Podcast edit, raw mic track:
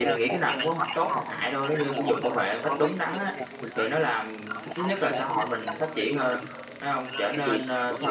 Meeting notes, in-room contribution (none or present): present